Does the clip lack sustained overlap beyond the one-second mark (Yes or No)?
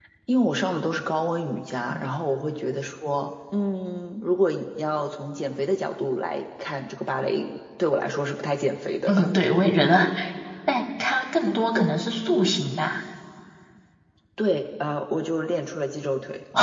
Yes